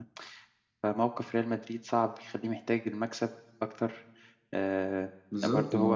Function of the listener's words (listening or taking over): taking over